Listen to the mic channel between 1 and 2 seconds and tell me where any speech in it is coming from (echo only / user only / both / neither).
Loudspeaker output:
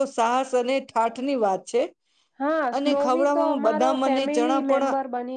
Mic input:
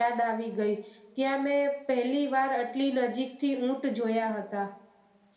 user only